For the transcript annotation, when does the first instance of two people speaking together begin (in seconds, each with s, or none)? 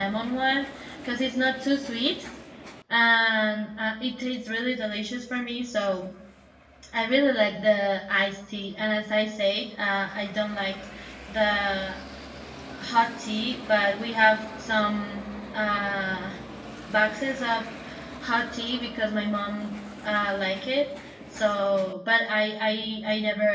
none